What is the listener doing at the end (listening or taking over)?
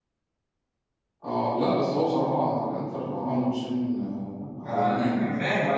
taking over